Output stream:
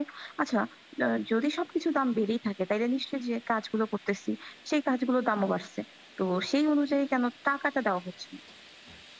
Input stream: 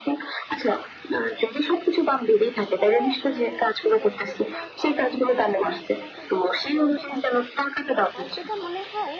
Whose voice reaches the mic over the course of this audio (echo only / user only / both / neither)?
both